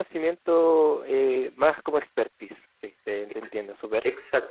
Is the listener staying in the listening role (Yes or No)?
No